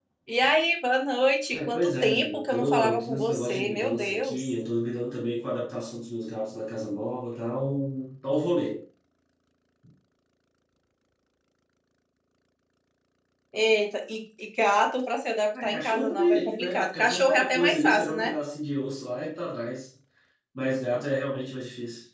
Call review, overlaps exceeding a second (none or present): present